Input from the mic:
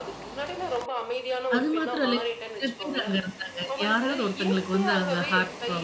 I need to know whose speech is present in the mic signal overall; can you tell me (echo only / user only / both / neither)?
both